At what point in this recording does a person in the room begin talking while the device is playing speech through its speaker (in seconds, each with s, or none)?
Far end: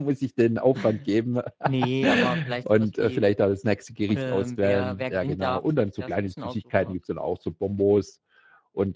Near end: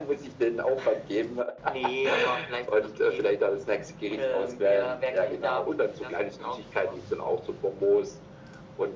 none